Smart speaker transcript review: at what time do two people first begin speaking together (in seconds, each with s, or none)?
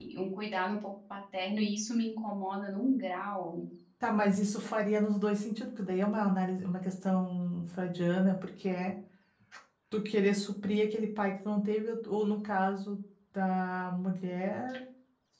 none